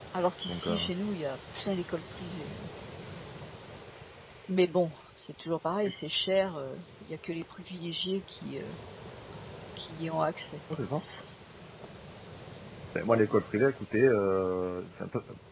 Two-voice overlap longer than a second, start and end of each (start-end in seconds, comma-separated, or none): none